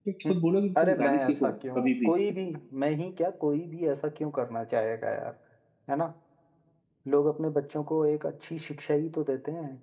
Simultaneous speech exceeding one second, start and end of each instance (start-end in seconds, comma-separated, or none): 0.8-2.1